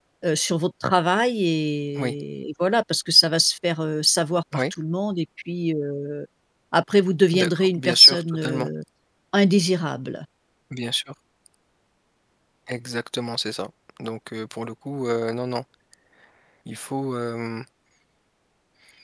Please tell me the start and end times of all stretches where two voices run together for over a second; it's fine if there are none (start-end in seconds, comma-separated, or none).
7.3-8.7